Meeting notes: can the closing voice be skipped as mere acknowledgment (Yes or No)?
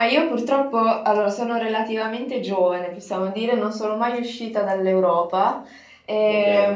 Yes